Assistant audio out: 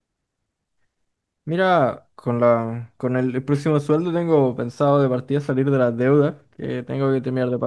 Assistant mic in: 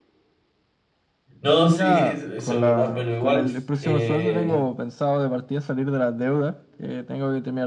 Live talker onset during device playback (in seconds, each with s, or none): 1.4 s